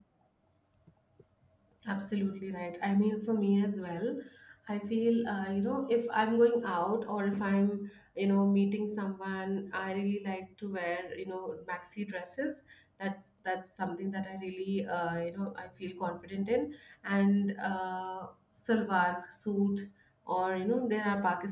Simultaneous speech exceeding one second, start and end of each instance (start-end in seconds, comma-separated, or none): none